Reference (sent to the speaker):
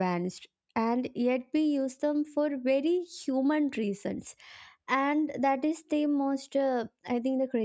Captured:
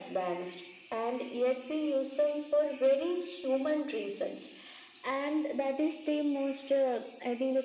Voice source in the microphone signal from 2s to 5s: echo only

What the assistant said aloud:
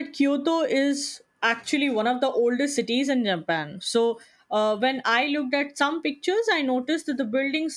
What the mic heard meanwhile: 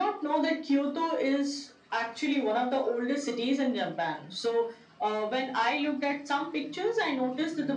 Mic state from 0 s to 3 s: echo only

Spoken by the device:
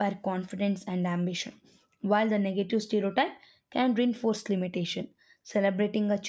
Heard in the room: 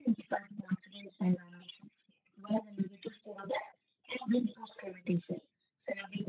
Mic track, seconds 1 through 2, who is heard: echo only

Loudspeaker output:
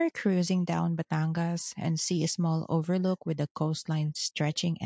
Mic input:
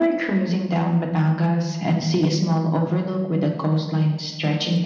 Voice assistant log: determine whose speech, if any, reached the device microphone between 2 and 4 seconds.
echo only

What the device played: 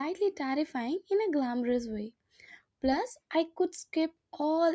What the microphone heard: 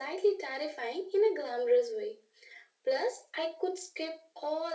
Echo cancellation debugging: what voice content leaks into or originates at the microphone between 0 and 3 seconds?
echo only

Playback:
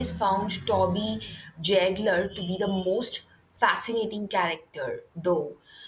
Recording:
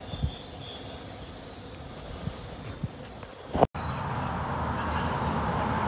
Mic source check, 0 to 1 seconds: neither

